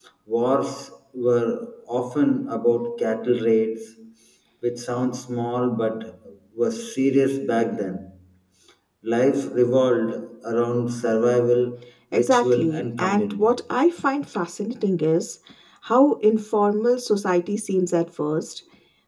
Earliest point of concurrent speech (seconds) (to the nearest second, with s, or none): 12 s